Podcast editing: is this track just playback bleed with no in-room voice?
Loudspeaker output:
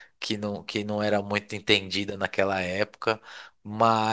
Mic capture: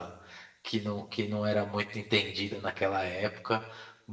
Yes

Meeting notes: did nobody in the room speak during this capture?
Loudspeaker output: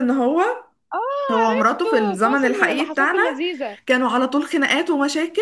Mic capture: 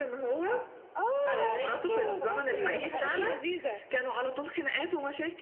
No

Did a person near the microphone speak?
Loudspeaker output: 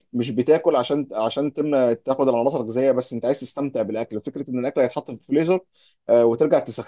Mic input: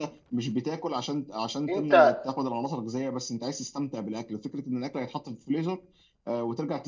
Yes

